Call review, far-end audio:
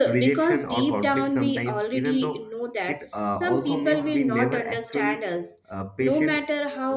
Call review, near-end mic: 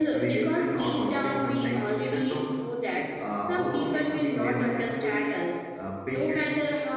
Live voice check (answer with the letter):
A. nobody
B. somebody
A